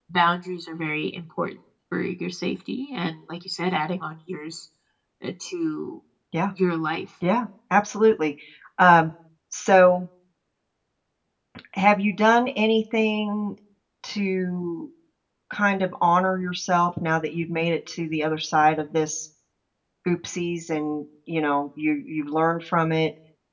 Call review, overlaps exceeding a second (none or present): none